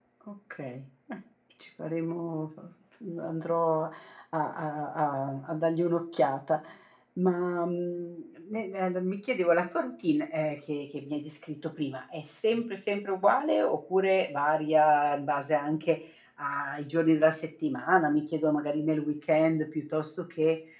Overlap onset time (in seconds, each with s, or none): none